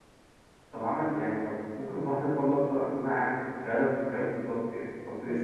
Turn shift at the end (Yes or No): No